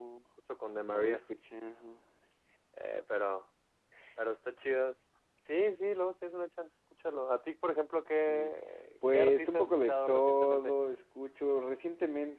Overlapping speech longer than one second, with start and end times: 9.1-10.7

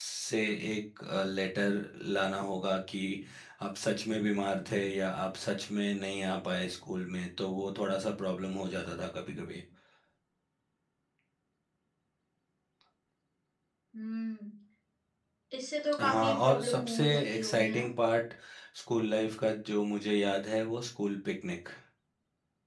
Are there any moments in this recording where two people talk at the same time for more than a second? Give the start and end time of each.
16.0-17.9

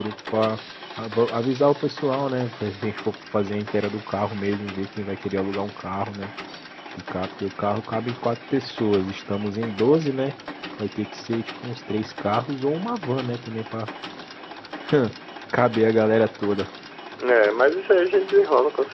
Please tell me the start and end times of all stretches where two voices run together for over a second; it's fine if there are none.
none

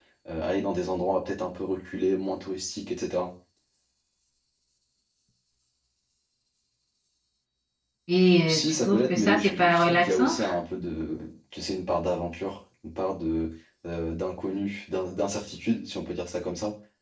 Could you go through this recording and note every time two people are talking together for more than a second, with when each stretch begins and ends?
8.5-10.3

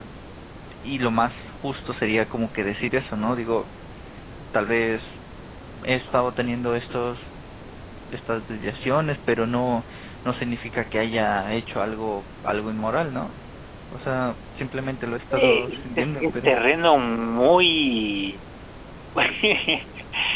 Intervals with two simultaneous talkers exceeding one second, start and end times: 15.3-16.5

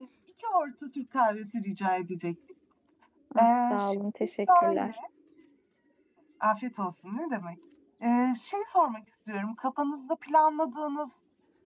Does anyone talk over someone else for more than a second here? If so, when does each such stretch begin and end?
3.4-4.9

